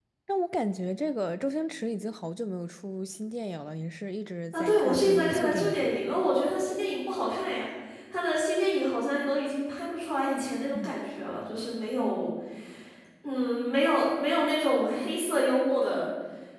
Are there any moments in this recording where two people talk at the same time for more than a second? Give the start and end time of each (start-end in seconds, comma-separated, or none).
4.5-5.9